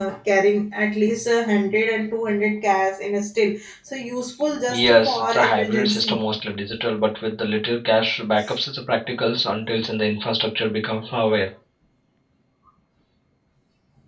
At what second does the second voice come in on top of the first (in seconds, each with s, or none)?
4.7 s